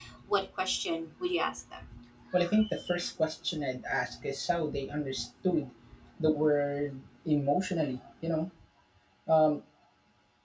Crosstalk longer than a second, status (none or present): none